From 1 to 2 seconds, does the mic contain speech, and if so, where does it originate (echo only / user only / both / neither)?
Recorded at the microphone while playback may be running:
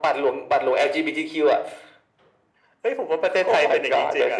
echo only